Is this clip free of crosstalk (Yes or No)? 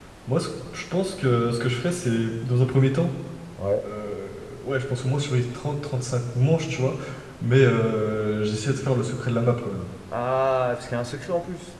Yes